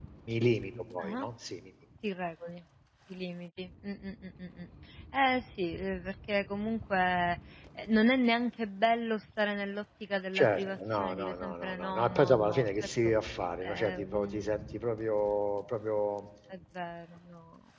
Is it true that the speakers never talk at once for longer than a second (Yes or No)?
No